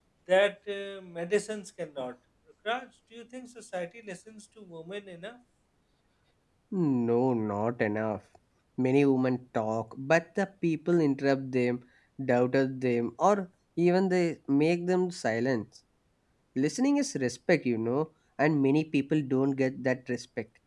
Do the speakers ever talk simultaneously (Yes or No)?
No